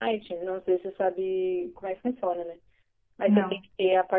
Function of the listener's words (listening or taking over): listening